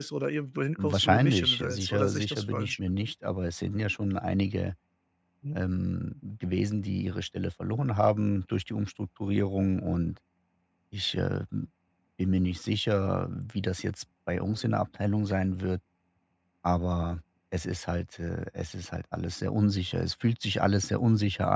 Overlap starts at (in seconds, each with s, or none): 0.8 s